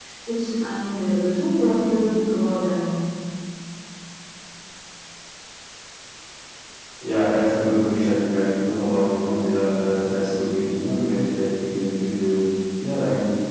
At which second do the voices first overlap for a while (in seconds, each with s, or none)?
none